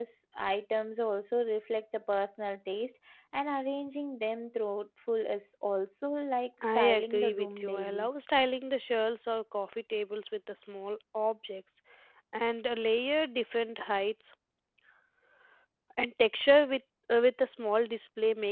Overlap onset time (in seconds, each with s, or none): 6.6 s